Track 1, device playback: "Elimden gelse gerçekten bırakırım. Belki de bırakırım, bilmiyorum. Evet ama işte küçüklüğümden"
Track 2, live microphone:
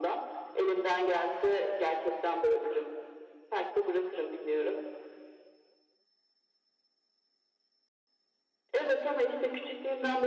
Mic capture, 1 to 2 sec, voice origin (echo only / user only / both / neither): echo only